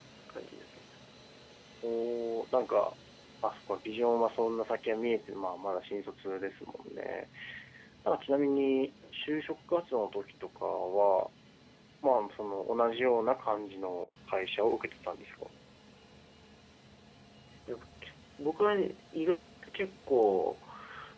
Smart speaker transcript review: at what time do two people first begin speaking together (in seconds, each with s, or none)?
none